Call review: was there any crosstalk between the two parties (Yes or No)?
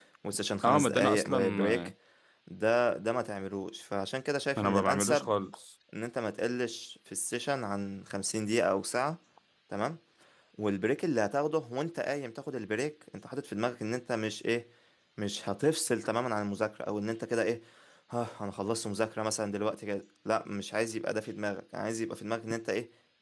Yes